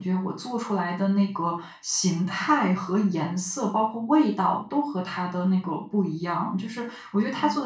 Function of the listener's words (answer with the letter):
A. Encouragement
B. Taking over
A